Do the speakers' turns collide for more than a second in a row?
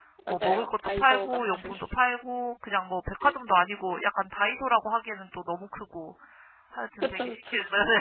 Yes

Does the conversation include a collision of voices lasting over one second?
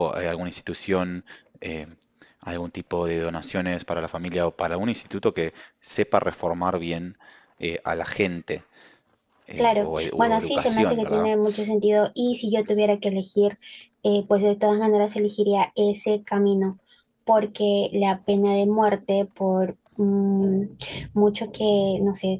Yes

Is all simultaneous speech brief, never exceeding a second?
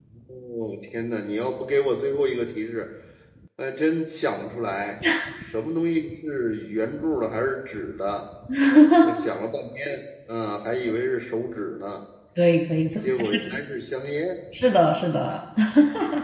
Yes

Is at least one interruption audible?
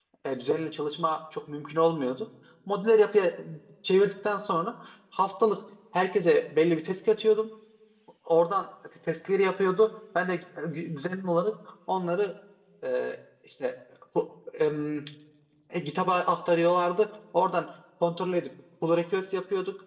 No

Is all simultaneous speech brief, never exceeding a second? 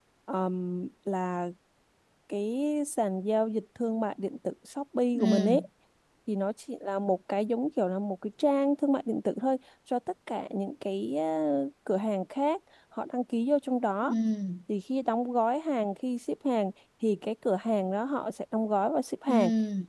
Yes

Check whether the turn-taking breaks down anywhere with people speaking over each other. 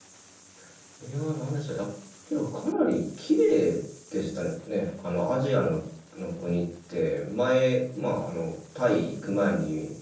No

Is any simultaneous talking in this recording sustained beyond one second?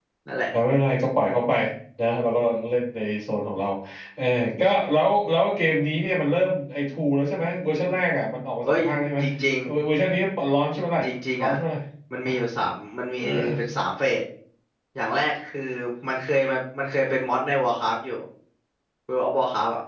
No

